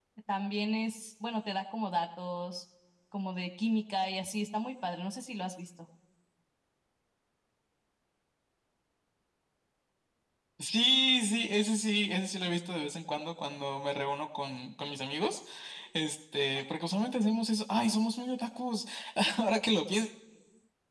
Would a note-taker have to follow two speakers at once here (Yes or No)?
No